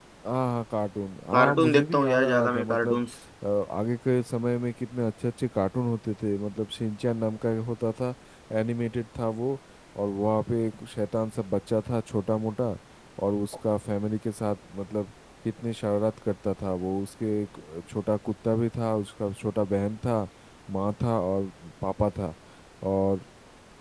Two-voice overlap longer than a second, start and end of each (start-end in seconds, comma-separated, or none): 1.3-3.0